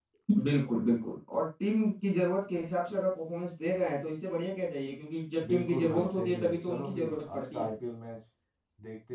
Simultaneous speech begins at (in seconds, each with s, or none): 5.4 s